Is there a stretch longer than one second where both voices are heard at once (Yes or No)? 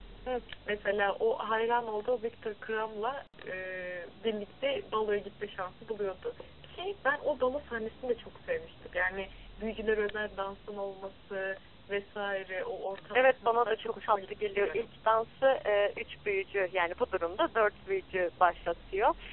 Yes